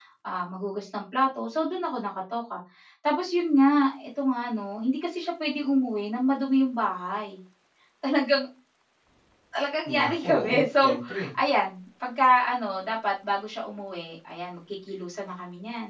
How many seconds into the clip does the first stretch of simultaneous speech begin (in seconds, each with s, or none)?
9.9 s